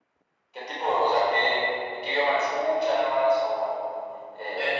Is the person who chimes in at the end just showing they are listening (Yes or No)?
No